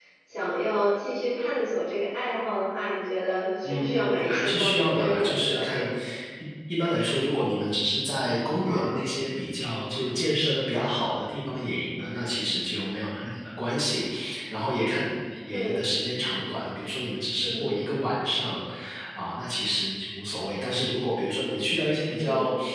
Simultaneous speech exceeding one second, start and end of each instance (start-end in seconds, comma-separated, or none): 3.7-5.8